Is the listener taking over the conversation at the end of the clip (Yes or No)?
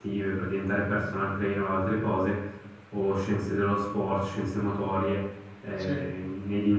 No